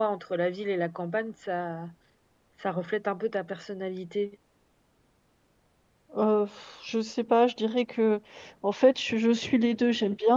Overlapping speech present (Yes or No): No